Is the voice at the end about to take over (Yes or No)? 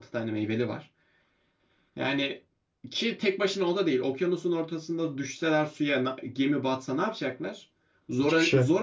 No